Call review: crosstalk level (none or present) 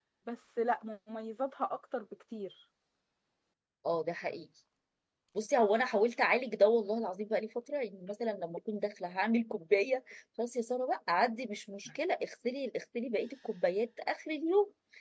none